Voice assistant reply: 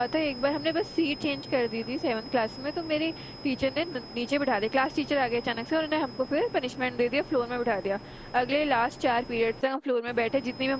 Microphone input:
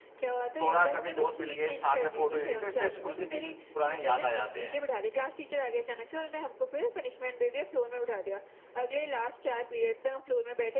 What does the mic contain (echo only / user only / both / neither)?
both